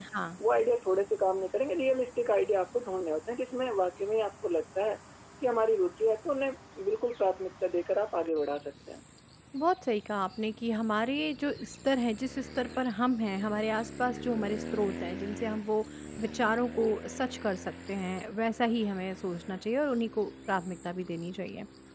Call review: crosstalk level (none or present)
none